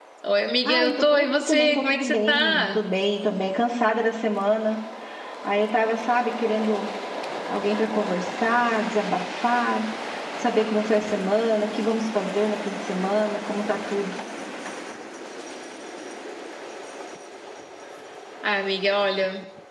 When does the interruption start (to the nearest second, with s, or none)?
1 s